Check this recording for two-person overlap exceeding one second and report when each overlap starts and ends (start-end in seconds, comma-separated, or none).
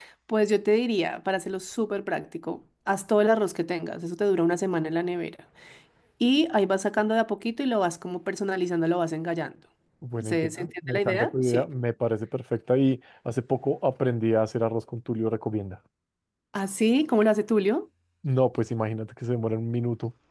10.2-11.7